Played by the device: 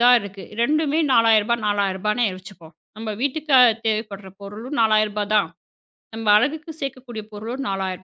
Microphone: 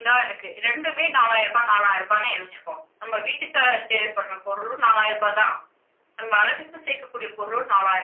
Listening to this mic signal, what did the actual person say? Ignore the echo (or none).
none